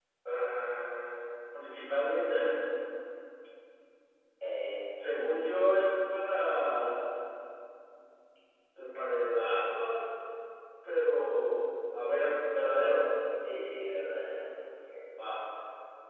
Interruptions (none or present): none